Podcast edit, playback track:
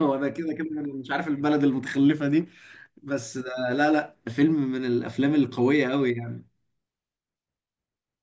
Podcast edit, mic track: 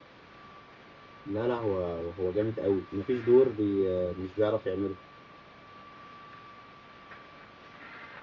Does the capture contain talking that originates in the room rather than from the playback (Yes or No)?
Yes